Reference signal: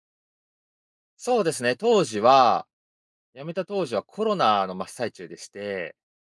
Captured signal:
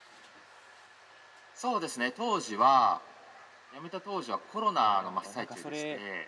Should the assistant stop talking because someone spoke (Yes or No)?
Yes